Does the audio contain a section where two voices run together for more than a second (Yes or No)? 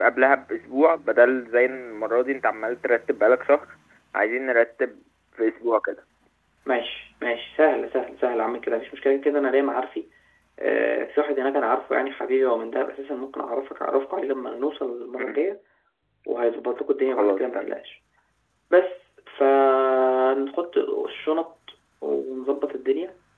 No